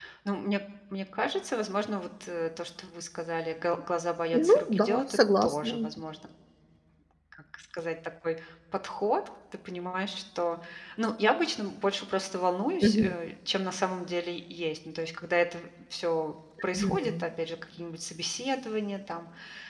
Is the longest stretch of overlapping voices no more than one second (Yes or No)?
No